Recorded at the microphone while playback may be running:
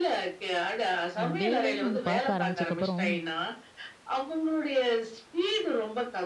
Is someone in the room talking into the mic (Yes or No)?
Yes